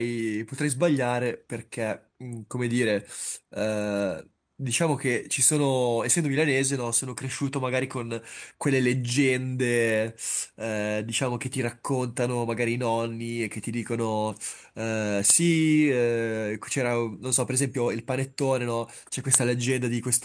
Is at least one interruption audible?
No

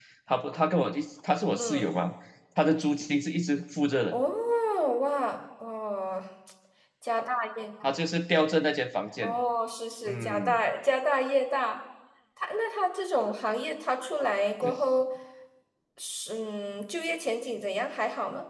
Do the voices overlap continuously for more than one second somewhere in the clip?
No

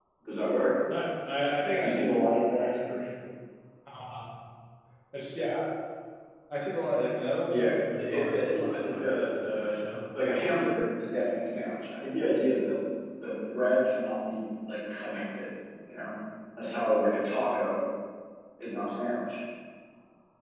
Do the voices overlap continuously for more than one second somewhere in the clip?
Yes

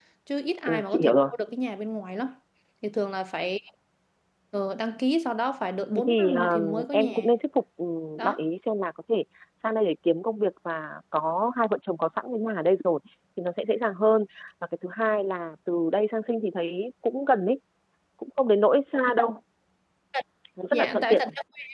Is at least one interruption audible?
Yes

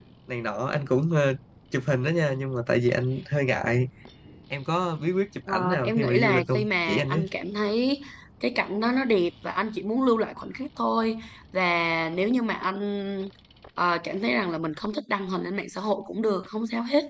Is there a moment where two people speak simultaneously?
Yes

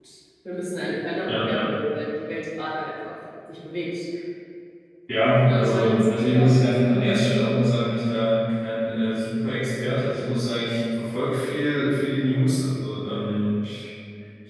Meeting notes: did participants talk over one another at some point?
Yes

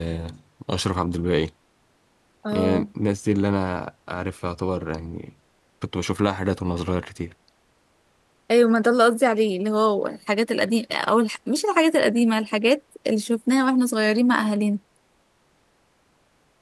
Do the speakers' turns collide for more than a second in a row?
No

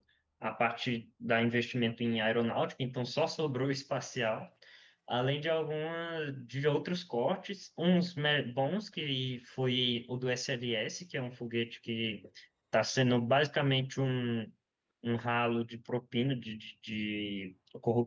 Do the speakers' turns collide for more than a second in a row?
No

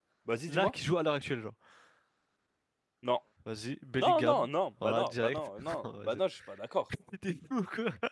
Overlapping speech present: Yes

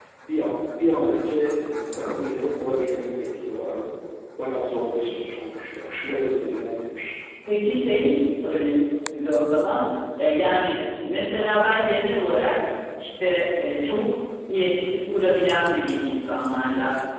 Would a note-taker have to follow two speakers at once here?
No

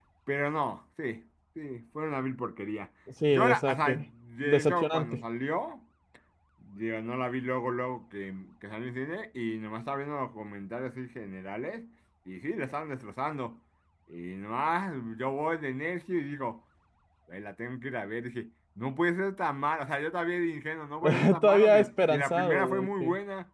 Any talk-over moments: Yes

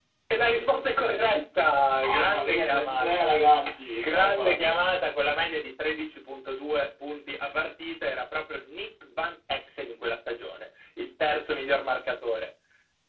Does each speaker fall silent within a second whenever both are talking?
No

